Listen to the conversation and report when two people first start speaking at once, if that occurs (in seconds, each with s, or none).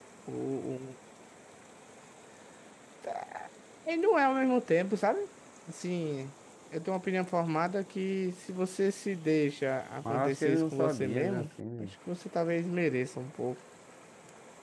10.0 s